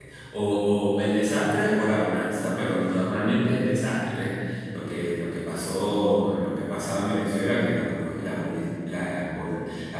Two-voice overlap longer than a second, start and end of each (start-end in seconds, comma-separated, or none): none